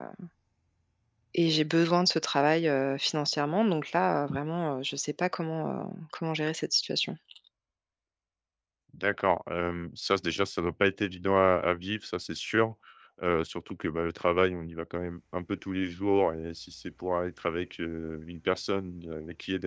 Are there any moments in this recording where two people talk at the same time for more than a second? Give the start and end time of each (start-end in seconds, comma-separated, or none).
none